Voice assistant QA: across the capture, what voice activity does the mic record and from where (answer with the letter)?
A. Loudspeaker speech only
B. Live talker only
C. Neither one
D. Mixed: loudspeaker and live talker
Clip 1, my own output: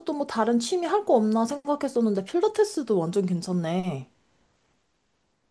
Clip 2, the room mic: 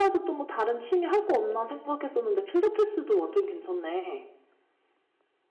A